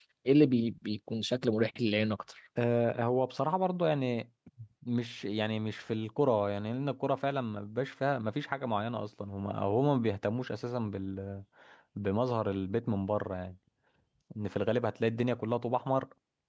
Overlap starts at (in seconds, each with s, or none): none